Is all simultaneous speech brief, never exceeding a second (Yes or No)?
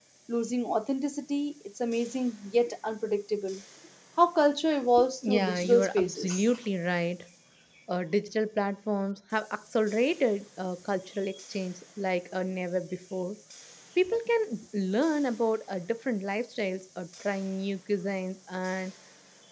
No